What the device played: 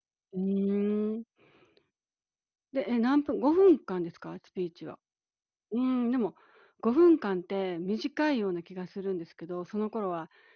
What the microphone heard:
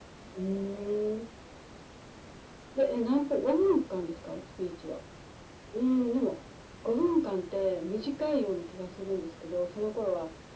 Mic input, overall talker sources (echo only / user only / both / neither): echo only